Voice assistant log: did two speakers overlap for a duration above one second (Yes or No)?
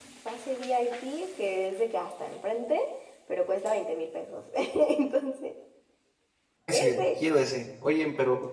No